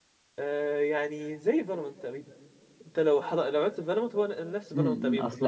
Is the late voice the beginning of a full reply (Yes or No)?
Yes